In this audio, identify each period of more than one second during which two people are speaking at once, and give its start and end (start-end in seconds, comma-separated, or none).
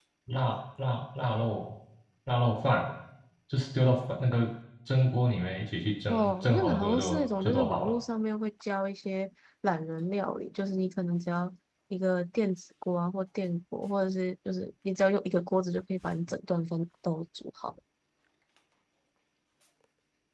6.1-7.9